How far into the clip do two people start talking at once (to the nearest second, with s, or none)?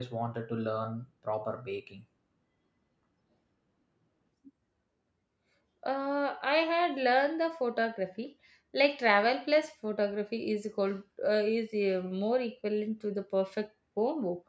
none